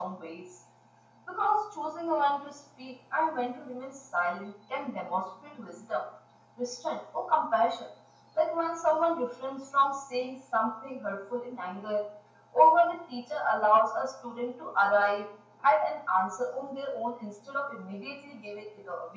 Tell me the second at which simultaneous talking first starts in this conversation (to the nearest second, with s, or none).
none